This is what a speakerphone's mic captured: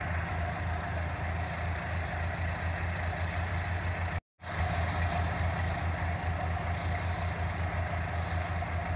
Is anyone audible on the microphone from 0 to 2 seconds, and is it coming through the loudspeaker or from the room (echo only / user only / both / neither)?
neither